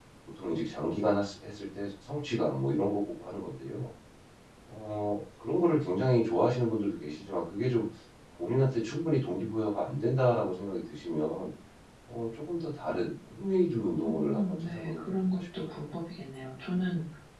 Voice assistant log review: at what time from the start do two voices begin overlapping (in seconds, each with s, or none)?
14.0 s